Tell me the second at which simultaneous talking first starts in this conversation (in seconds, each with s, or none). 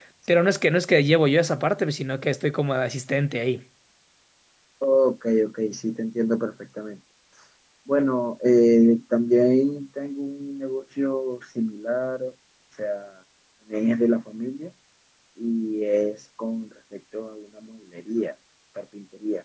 none